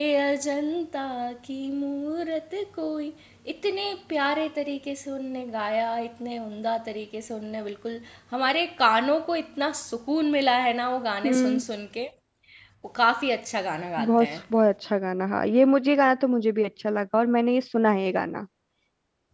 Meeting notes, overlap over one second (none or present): none